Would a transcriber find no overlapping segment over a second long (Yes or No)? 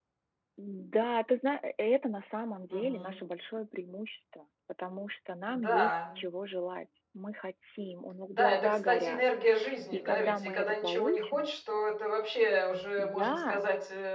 No